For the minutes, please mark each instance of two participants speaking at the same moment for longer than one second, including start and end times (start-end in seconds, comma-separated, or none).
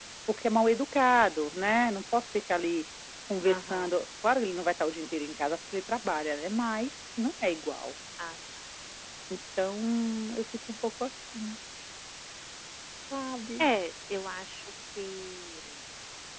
none